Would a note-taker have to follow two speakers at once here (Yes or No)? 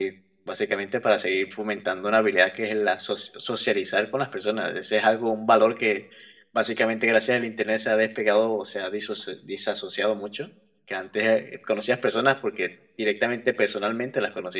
No